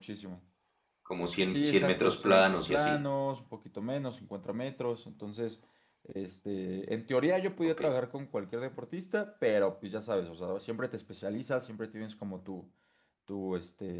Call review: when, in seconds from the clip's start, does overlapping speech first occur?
1.5 s

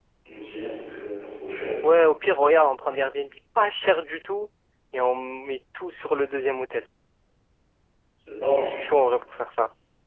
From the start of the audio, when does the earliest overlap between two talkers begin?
none

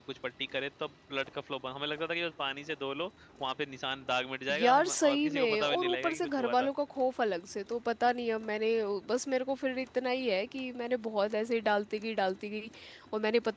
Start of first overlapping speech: 4.5 s

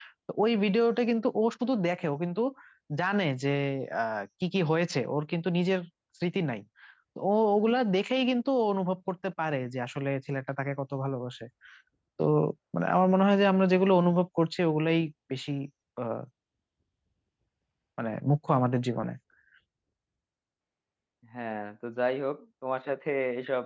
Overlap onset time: none

